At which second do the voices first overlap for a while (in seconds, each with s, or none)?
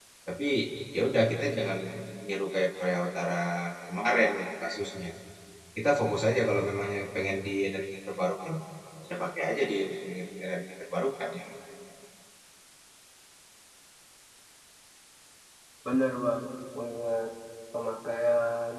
none